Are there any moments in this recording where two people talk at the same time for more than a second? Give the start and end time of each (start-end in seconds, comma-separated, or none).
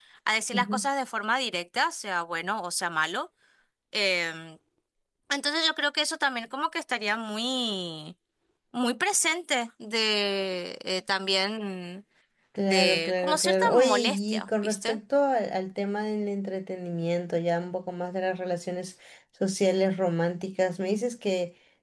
12.7-15.0